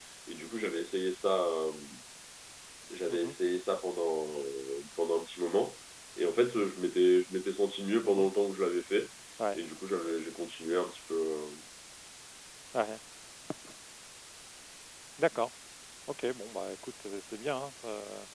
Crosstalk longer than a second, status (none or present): none